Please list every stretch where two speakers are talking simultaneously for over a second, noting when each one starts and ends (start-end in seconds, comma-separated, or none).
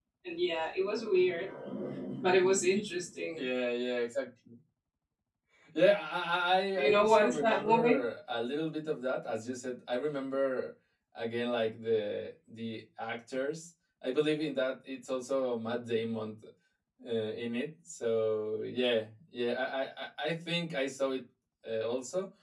6.8-8.0